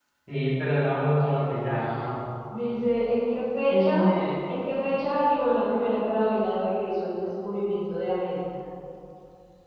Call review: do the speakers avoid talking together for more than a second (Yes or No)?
Yes